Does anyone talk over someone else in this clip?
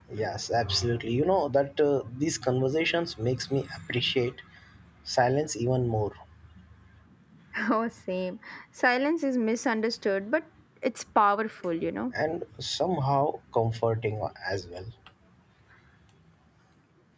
No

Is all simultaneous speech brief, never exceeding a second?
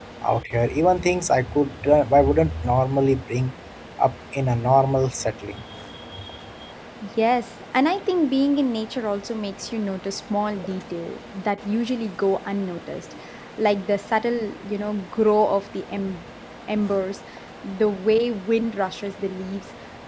Yes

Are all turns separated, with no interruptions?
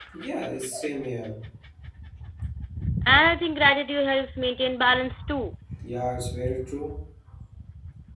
Yes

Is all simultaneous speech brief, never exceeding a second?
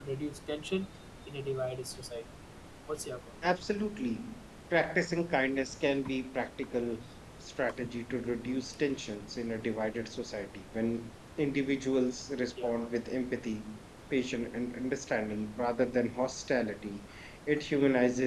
Yes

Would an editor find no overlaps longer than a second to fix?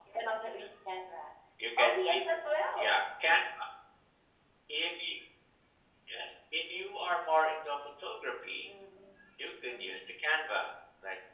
Yes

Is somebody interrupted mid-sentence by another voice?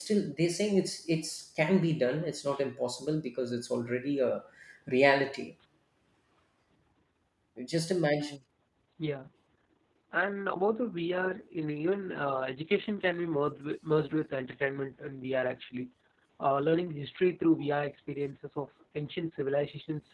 No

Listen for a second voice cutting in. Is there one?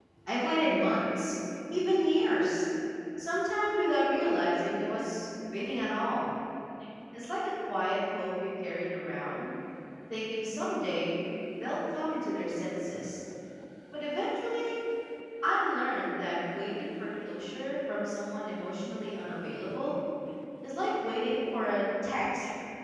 No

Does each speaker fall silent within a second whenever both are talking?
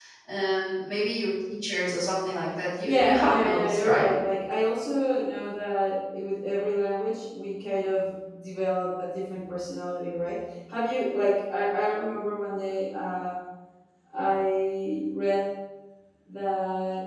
No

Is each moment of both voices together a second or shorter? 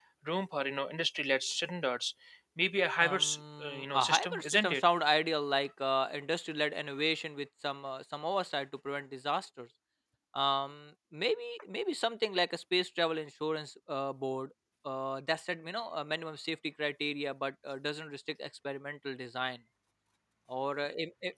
No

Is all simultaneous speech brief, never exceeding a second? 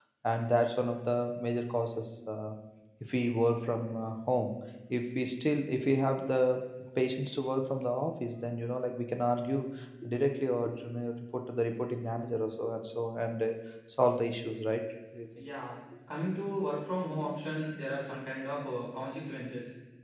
Yes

